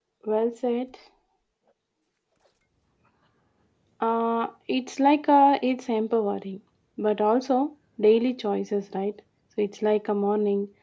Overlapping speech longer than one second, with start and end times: none

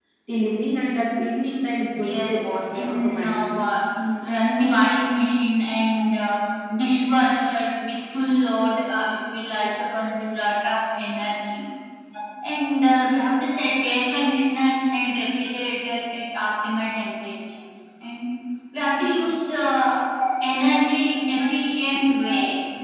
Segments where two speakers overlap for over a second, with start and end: 2.0-3.5

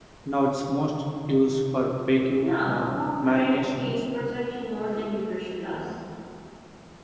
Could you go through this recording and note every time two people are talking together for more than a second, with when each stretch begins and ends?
2.4-3.9

